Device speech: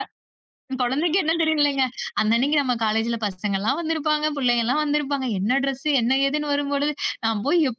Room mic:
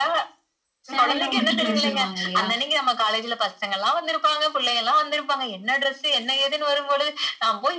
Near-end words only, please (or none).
சேலையெல்லாம் உடுத்திட்டு வர சொல்லுவாங்க இல்லையா?